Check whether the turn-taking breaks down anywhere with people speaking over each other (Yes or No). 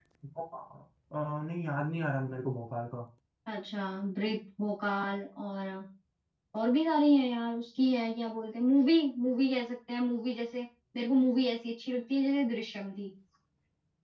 No